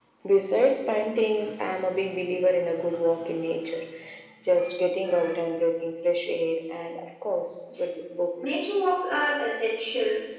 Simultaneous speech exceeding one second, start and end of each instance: none

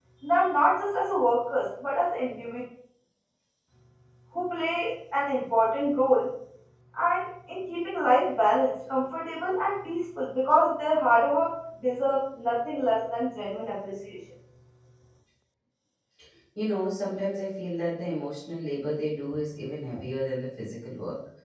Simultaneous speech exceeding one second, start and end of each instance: none

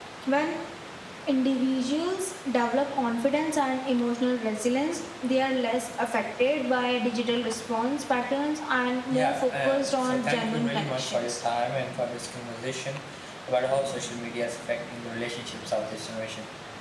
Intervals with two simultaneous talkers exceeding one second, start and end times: 9.1-11.4

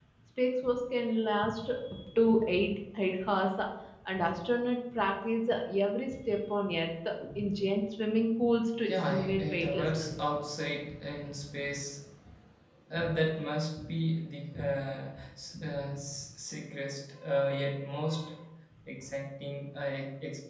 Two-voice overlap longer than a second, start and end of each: 8.9-10.2

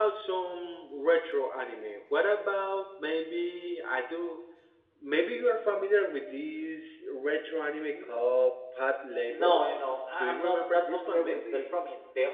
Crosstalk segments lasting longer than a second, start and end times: 10.2-11.6

